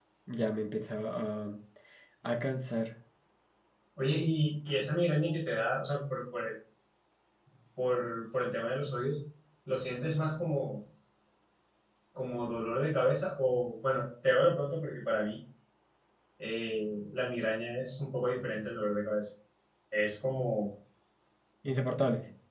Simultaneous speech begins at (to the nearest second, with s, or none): none